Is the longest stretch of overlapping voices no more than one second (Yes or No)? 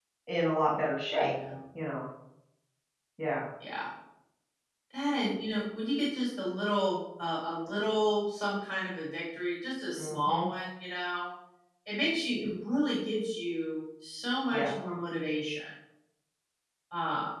Yes